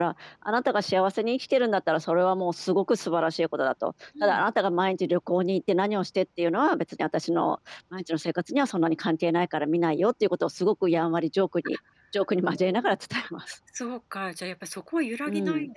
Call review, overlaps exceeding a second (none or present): none